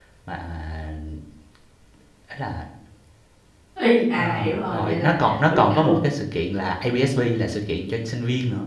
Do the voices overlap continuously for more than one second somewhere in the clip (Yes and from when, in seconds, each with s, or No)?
Yes, from 4.2 s